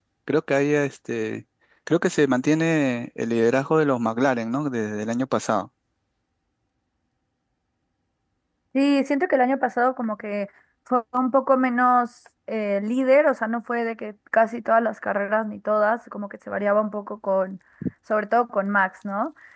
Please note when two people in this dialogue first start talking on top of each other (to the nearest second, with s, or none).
none